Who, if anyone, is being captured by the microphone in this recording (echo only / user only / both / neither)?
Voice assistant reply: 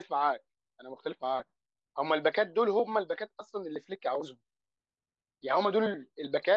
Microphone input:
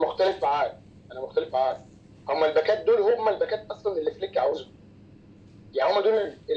echo only